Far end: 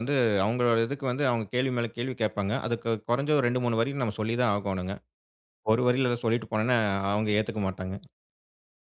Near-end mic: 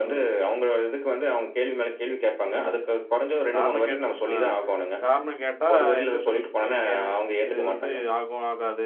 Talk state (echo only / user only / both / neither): both